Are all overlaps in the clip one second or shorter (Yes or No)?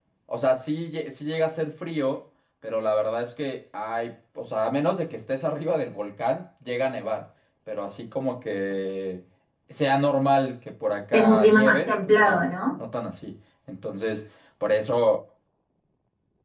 No